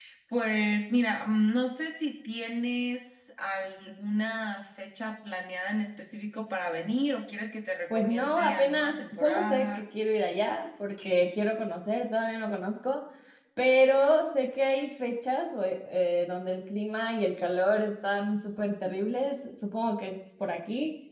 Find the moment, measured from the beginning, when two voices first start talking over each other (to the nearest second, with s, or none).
8 s